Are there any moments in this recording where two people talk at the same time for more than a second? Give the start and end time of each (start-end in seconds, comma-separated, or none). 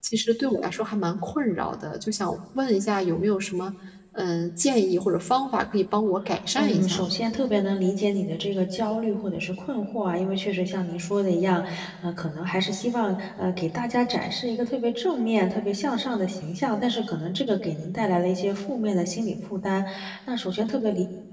none